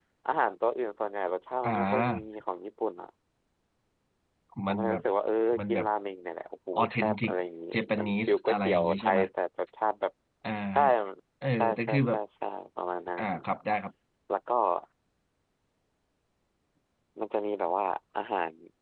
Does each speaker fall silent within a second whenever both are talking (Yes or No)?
No